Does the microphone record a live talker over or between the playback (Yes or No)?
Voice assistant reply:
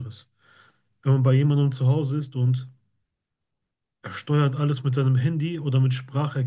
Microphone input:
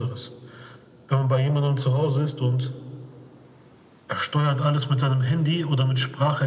No